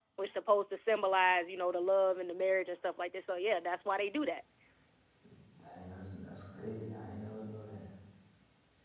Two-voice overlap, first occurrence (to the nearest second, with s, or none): none